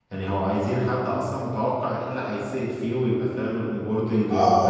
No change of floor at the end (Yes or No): No